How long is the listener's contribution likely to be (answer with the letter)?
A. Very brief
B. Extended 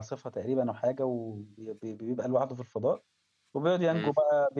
A